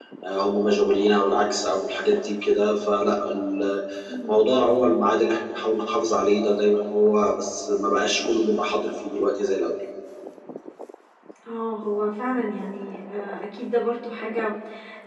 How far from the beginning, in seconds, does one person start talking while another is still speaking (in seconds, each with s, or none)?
none